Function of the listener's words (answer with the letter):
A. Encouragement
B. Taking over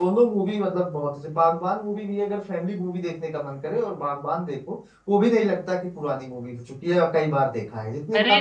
B